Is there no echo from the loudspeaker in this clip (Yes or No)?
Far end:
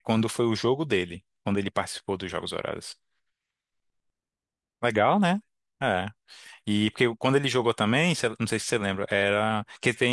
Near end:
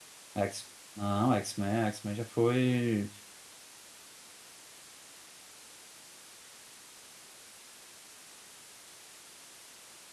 Yes